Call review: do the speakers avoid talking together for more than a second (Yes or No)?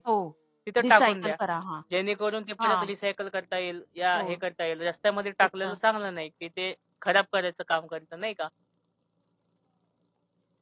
Yes